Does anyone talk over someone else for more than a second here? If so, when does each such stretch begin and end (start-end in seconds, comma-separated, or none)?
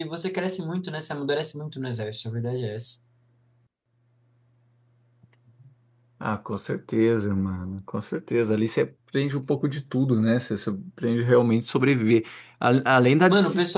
none